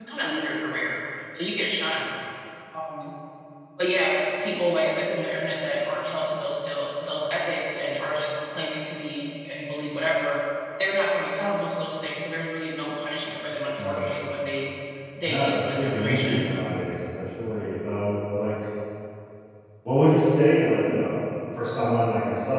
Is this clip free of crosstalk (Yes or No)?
No